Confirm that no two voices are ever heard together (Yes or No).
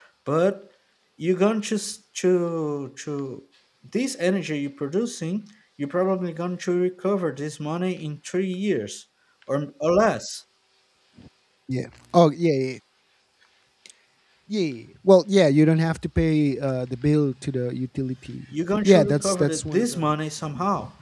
No